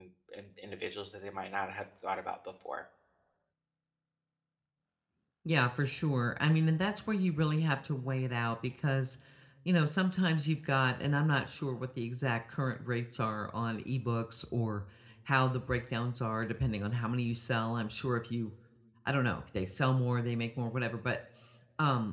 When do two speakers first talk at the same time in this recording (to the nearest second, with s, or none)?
none